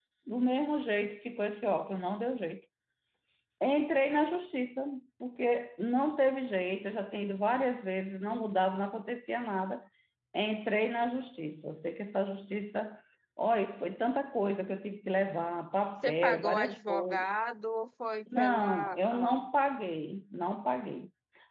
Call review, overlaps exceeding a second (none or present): present